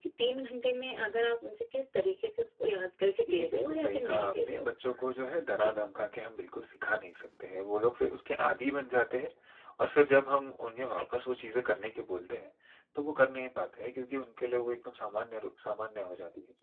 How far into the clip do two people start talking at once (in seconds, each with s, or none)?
3.3 s